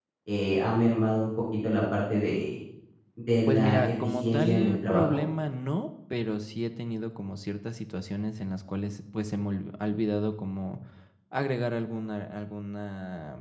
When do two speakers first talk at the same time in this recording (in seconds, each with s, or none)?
3.5 s